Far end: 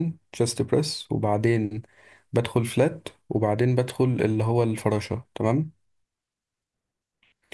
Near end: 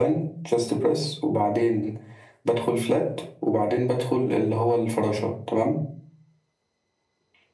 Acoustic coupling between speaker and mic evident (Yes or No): Yes